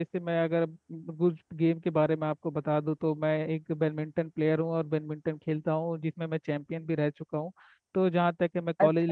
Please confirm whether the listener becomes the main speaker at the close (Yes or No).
Yes